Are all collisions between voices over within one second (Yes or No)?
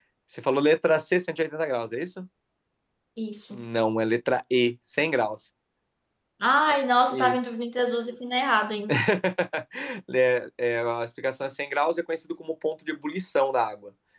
Yes